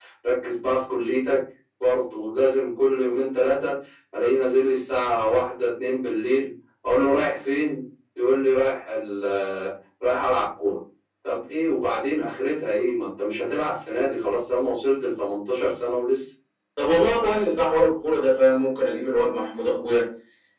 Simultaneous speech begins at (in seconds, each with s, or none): none